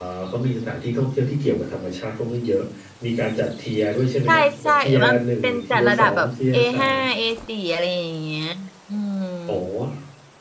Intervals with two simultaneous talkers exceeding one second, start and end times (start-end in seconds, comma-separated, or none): 4.3-7.0